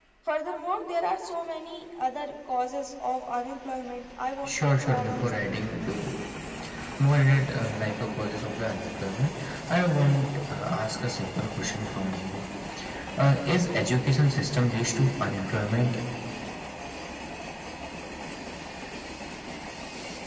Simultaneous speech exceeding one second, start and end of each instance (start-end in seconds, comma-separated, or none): 4.5-5.9